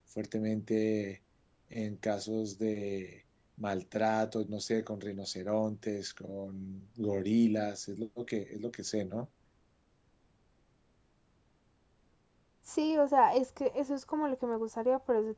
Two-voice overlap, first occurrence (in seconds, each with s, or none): none